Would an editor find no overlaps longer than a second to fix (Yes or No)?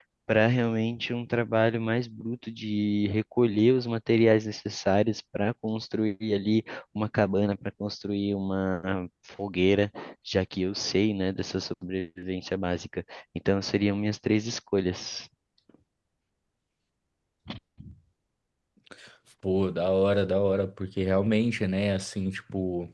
Yes